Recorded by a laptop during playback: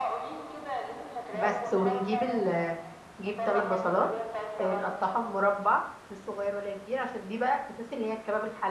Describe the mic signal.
both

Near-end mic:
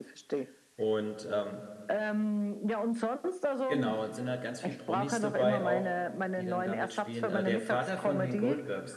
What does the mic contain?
both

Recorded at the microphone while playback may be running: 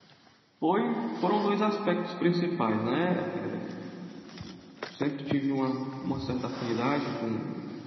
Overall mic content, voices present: user only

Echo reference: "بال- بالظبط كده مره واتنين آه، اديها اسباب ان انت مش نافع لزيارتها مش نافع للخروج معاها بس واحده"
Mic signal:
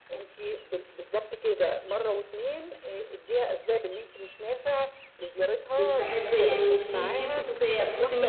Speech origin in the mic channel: both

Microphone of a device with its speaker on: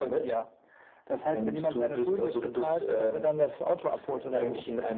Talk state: both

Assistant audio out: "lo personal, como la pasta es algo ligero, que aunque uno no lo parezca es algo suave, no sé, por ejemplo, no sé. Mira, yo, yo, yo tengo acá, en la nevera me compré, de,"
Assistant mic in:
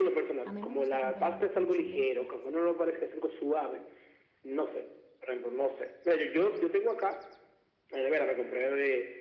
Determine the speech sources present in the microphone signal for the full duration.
both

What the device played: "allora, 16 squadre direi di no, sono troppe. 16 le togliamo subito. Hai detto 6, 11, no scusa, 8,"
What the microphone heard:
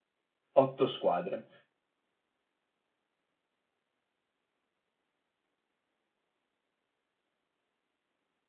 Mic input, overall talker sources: user only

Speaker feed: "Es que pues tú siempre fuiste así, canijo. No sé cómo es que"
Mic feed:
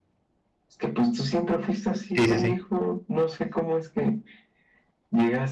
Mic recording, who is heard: both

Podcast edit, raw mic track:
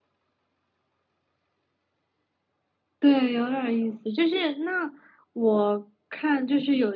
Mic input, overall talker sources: user only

